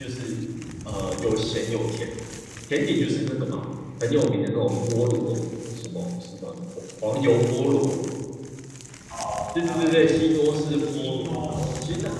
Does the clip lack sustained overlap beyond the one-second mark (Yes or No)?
No